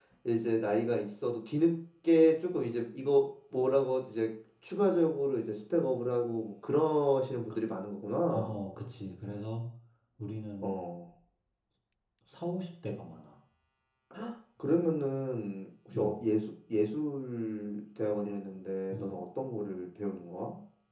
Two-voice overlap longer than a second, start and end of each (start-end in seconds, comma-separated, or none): none